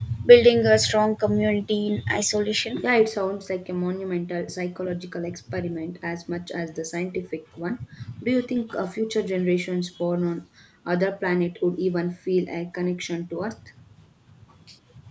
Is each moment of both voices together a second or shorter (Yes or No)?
Yes